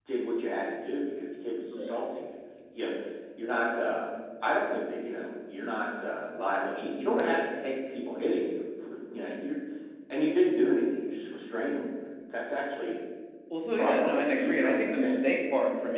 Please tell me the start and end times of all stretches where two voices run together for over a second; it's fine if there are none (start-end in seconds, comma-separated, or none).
13.8-15.2